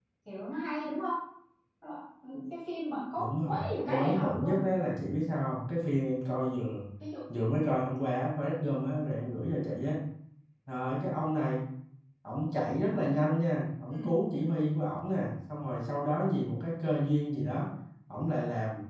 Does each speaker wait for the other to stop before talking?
No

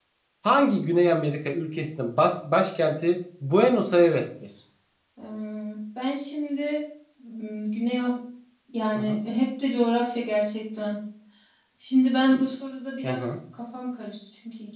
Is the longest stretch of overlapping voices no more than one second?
Yes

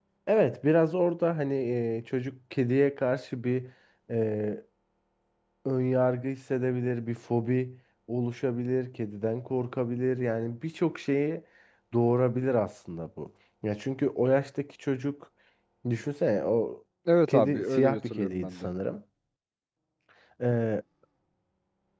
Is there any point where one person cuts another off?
Yes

